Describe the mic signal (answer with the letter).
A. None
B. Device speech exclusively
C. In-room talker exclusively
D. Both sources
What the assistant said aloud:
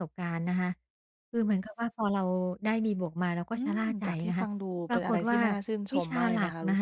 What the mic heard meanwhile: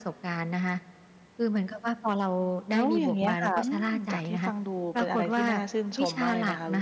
D